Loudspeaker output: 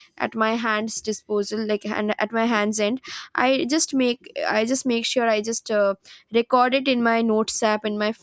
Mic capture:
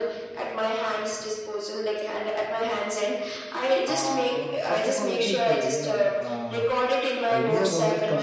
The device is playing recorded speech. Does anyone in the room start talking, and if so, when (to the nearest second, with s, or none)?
4 s